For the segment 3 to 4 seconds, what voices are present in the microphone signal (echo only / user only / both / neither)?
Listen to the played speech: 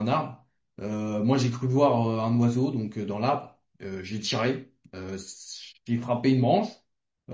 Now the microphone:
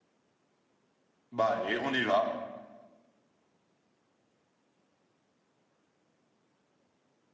neither